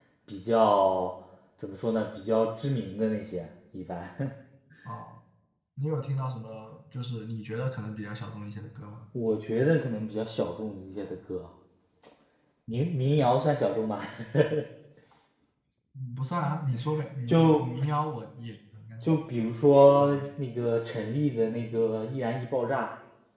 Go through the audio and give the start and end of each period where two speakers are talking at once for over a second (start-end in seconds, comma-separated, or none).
none